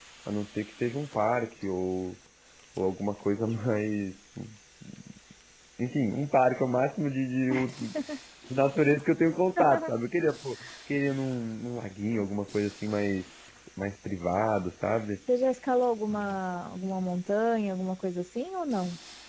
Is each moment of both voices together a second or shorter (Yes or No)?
Yes